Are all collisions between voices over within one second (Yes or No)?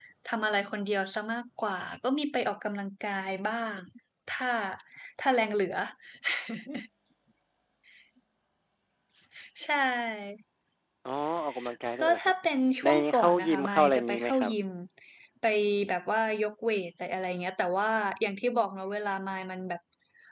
No